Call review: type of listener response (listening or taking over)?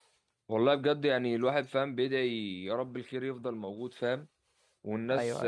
listening